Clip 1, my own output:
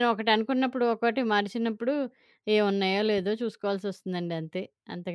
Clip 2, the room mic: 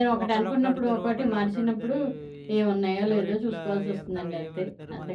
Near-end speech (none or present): present